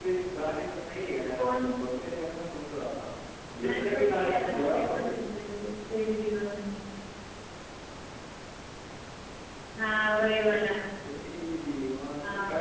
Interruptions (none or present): present